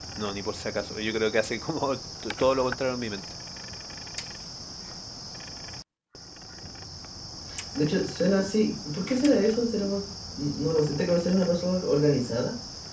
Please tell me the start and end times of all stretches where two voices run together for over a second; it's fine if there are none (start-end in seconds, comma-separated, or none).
none